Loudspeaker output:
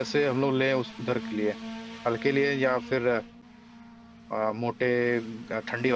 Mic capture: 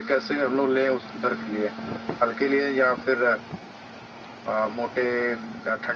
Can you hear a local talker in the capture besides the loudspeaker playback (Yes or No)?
No